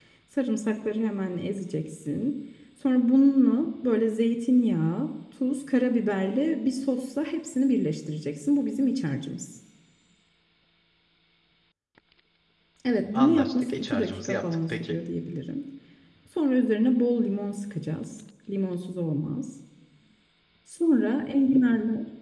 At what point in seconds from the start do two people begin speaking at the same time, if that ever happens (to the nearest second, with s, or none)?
13 s